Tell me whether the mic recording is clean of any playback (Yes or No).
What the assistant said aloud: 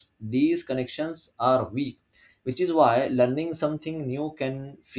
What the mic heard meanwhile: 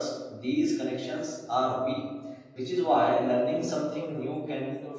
No